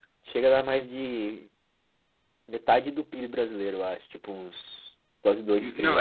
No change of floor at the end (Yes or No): No